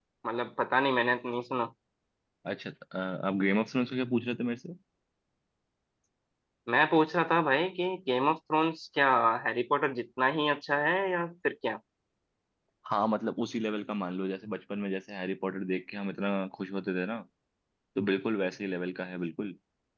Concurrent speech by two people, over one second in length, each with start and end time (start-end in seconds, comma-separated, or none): none